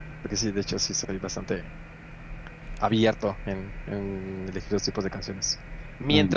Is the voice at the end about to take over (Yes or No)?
No